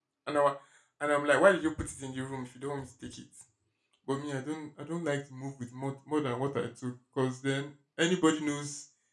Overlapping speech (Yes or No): No